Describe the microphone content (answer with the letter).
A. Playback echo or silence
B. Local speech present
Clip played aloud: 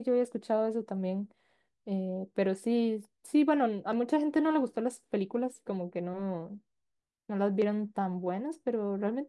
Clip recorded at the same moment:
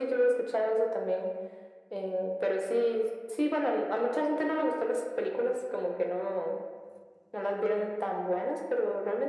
A